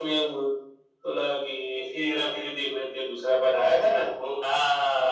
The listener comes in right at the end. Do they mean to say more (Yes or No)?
Yes